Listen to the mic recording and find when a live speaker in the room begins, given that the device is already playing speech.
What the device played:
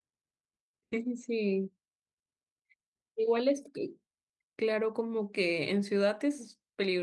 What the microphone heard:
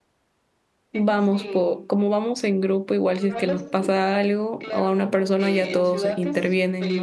1 s

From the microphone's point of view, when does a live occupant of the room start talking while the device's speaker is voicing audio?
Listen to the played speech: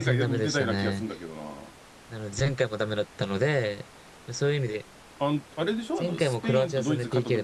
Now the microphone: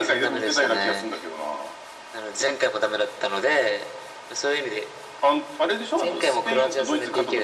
none

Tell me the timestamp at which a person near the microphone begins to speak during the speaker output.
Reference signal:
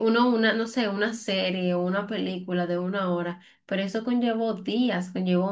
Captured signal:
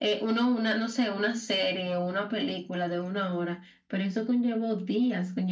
none

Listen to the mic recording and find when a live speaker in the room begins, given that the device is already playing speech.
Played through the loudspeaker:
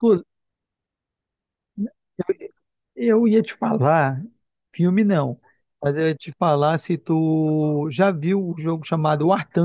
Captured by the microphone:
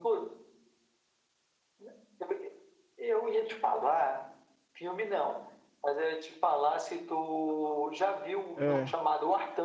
9 s

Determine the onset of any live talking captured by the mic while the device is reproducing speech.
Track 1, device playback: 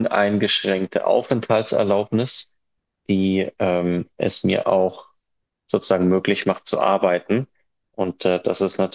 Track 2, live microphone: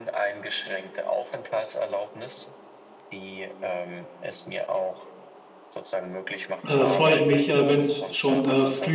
7 s

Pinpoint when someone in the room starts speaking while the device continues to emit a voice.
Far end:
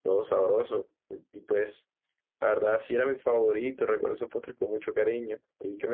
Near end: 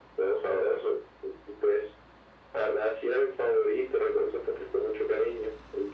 none

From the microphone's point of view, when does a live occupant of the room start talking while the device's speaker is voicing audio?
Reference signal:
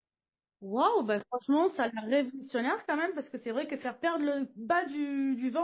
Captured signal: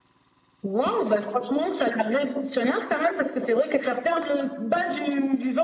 none

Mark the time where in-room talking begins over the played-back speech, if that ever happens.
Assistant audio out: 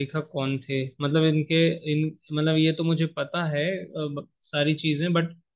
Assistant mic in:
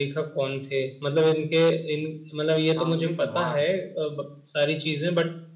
2 s

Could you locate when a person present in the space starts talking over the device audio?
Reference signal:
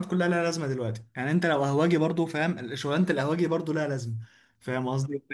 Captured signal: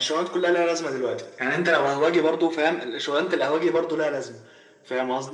none

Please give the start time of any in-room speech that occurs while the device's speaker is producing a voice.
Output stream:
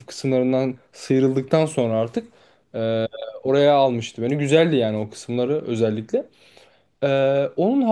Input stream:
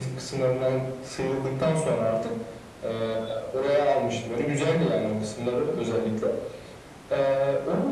none

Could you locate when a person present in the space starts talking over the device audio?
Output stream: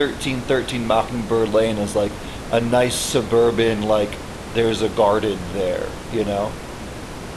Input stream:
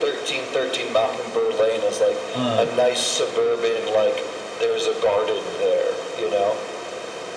2 s

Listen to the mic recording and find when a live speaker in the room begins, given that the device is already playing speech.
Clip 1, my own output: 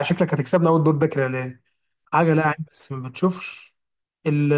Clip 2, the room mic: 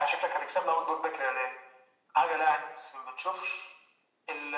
none

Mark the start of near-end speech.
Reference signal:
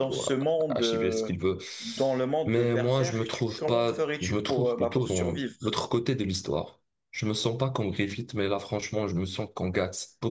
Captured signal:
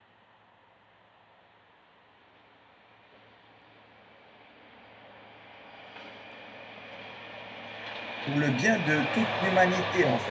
8 s

